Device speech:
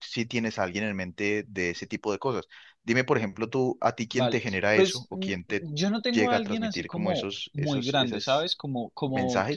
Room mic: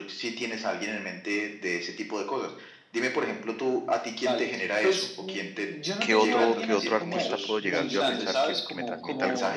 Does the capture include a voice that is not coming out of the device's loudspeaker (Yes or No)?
Yes